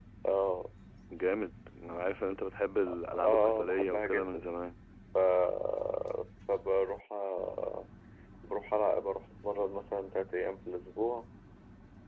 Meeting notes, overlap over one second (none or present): present